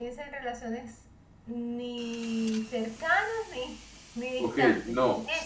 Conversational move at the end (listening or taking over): taking over